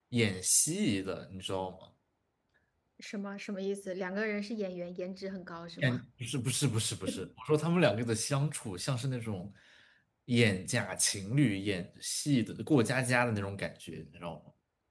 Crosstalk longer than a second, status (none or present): none